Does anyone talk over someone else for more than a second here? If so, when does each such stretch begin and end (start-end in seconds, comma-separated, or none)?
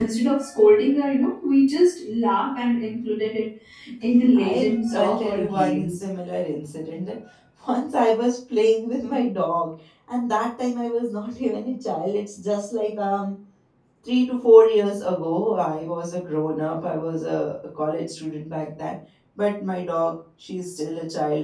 4.4-6.0